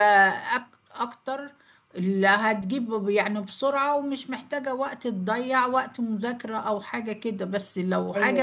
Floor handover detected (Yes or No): No